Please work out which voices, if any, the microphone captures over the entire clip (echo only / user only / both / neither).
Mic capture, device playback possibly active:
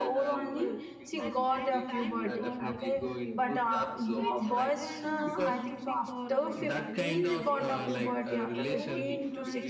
both